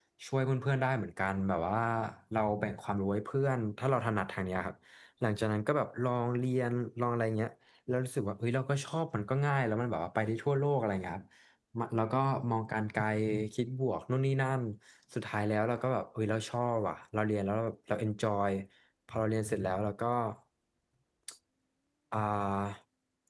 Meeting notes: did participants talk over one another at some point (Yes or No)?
No